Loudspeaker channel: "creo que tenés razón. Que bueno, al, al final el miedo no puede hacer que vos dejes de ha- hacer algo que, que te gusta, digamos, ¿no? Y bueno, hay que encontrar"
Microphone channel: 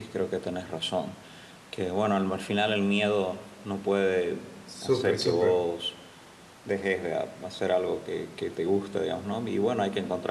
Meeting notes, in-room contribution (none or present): present